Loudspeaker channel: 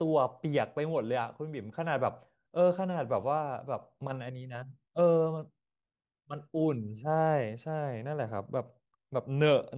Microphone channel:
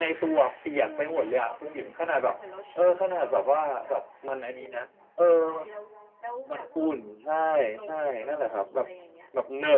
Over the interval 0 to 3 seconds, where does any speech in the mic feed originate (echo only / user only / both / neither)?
both